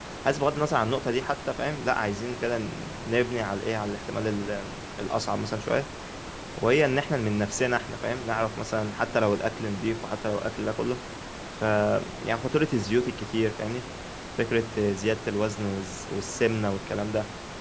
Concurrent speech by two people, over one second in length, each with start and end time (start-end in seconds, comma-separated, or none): none